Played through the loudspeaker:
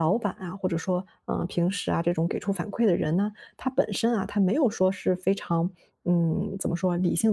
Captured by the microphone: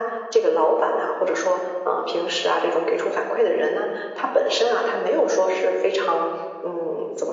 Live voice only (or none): none